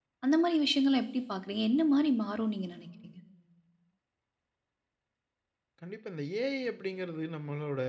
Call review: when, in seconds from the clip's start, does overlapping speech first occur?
none

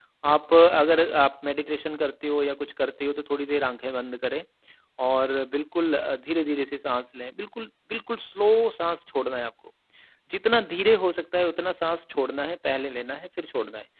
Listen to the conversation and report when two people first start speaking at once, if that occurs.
none

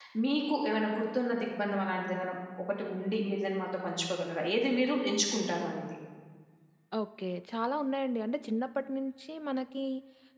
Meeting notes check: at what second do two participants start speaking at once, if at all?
none

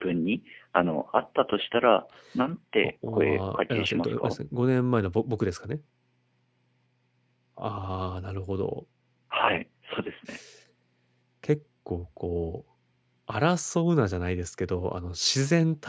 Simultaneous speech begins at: 3 s

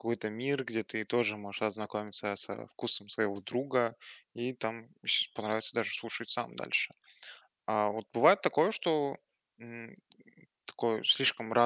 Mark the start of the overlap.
none

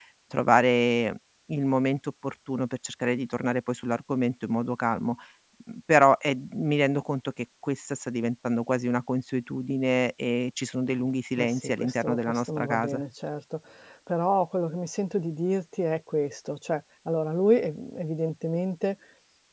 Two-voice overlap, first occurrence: 11 s

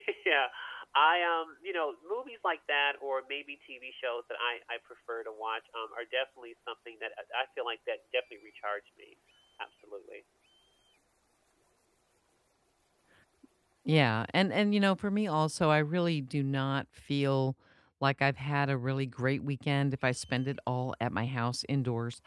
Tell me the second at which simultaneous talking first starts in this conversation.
none

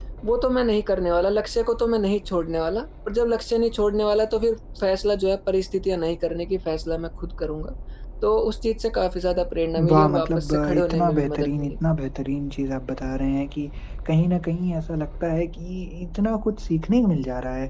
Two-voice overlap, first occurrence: 10 s

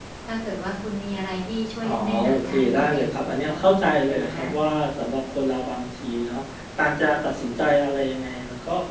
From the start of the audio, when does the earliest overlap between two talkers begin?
2 s

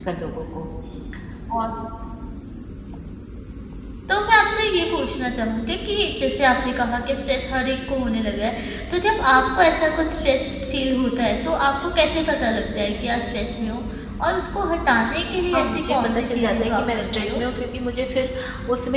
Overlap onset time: 16 s

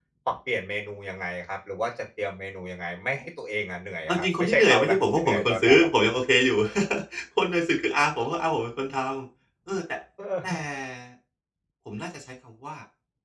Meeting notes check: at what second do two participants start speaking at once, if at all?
4 s

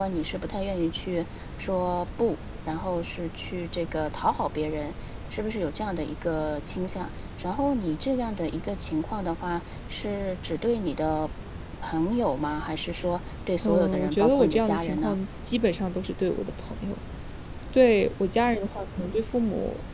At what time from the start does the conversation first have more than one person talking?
14 s

